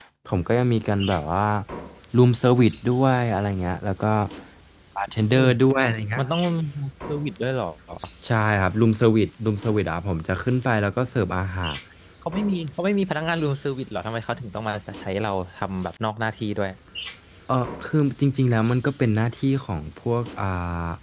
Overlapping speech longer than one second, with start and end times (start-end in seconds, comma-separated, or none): none